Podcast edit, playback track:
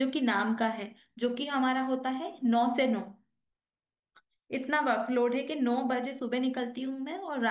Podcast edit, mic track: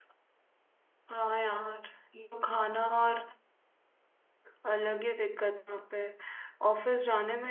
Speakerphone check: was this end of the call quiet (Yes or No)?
No